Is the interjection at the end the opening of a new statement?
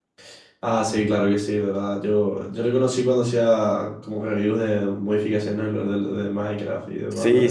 Yes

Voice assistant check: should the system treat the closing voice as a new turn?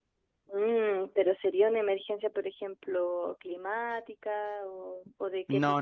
Yes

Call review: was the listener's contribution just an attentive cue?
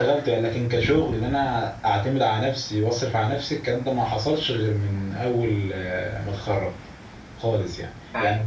No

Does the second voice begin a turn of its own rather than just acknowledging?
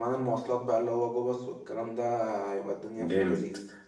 Yes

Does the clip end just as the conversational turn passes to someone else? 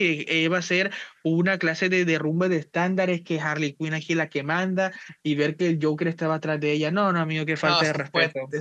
Yes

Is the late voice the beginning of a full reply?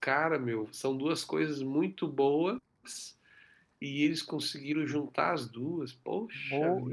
Yes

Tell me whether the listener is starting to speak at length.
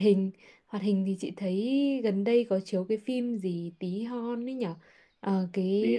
No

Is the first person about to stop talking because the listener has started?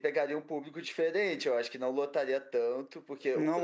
Yes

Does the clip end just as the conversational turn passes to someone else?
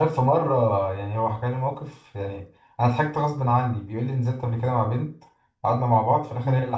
No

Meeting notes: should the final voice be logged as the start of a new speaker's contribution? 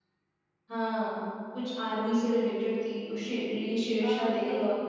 Yes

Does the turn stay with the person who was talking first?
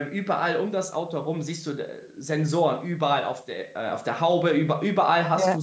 Yes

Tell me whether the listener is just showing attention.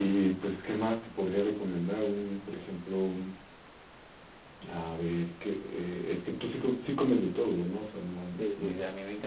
No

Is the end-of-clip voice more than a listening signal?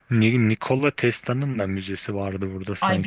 Yes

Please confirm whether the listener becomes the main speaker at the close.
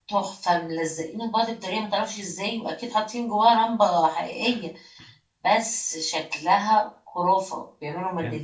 Yes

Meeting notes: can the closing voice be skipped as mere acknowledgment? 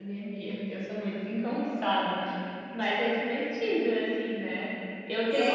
Yes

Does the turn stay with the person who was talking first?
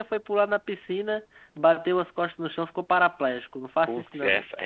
No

